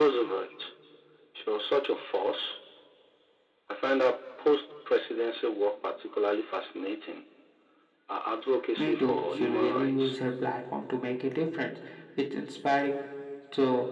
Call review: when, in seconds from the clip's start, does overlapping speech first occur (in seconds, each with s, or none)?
8.8 s